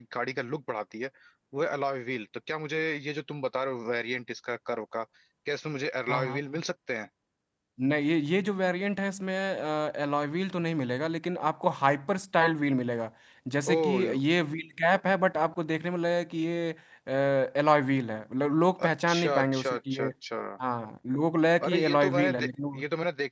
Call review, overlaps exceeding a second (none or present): present